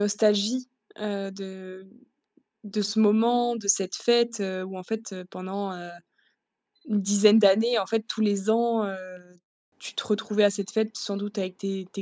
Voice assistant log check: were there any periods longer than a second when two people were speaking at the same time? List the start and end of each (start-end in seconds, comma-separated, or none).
none